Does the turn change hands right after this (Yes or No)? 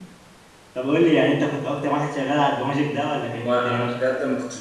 Yes